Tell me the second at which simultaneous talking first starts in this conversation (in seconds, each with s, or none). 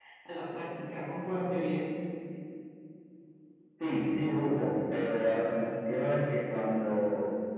none